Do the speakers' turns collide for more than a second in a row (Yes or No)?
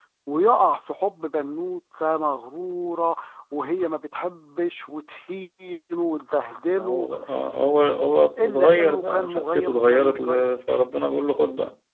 Yes